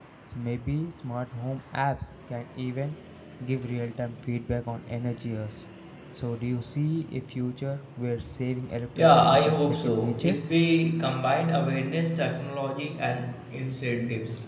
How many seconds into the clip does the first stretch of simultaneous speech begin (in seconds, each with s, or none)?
9.0 s